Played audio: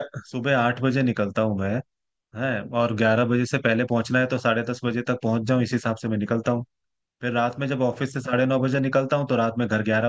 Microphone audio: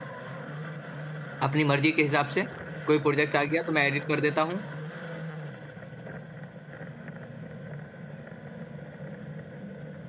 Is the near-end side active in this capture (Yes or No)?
Yes